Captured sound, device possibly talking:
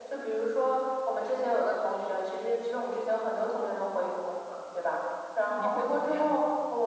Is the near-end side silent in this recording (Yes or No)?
No